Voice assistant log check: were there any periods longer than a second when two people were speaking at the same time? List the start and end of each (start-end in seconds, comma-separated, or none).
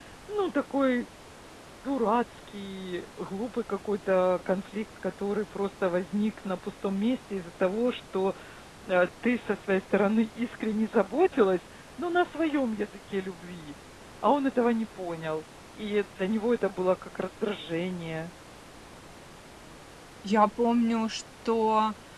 none